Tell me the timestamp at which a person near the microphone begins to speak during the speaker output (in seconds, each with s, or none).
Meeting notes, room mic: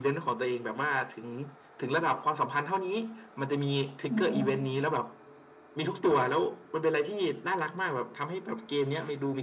4.1 s